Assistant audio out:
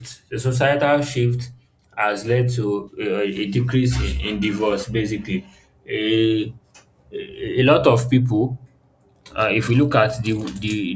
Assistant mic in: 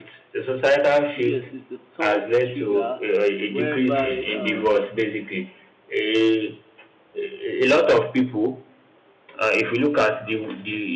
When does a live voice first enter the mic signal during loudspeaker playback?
1.1 s

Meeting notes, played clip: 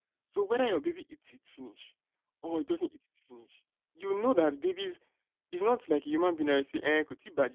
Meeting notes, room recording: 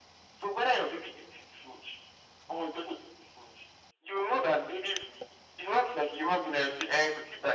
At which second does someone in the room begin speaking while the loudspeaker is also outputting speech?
none

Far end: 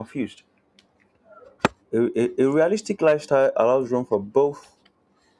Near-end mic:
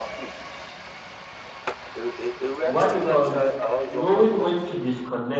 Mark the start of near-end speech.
2.6 s

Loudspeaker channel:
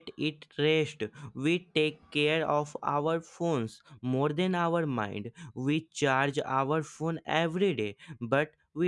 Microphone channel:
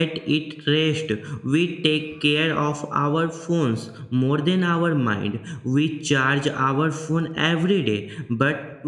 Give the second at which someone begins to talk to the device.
none

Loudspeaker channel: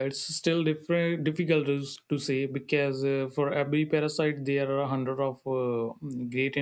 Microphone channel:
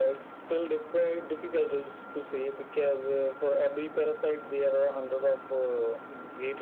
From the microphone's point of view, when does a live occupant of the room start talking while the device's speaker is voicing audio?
none

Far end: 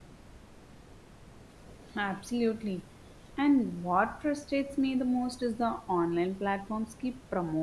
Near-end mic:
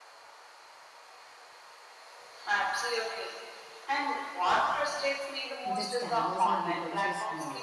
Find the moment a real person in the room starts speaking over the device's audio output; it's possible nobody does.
5.6 s

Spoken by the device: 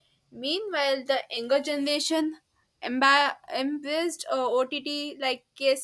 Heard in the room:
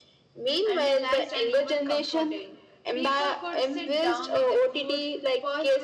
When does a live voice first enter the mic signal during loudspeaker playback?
0.6 s

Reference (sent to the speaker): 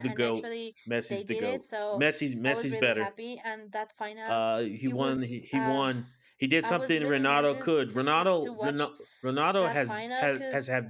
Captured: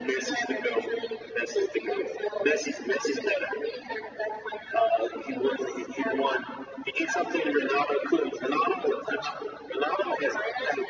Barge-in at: none

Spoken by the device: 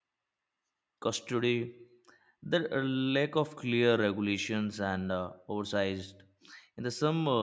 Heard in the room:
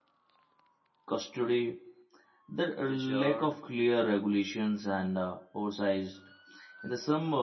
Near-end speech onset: 2.9 s

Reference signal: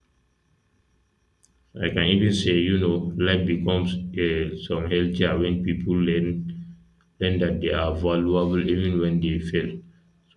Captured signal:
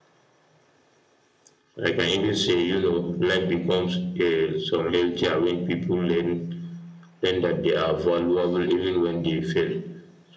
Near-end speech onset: none

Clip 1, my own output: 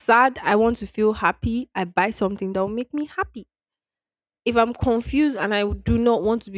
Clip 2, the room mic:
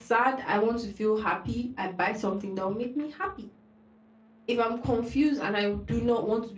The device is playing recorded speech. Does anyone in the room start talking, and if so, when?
none

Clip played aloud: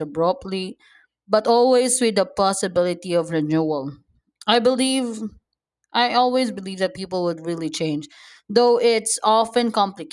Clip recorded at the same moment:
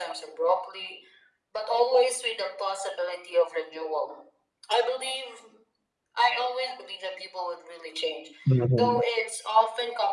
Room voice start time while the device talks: 8.5 s

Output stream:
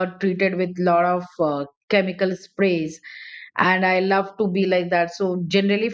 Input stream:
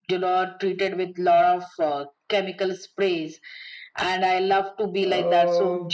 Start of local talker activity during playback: 5.0 s

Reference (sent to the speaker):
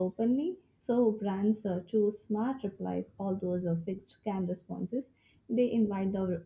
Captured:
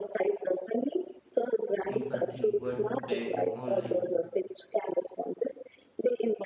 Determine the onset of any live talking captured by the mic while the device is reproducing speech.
1.9 s

